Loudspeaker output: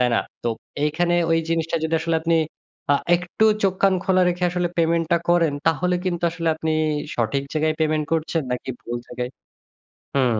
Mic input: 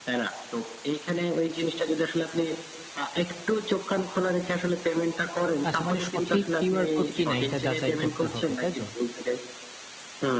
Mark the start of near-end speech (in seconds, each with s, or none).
5.7 s